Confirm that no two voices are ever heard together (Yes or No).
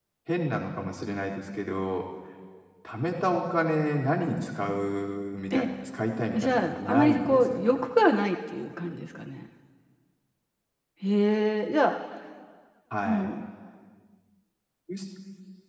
No